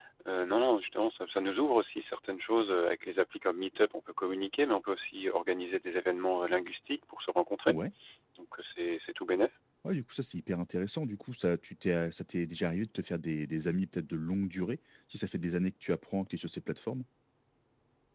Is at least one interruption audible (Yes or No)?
No